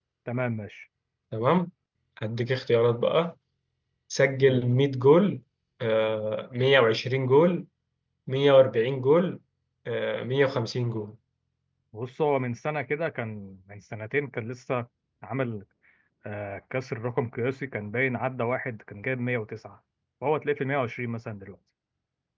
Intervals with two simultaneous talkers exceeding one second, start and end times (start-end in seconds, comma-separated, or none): none